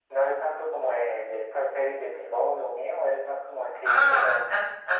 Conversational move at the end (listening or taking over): taking over